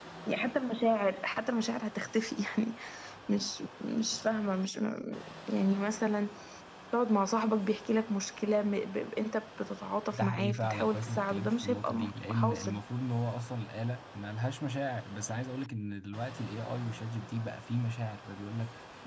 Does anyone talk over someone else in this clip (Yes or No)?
Yes